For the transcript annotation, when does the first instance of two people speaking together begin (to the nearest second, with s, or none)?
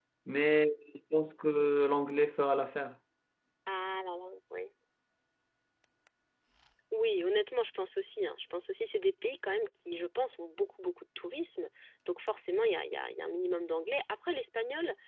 none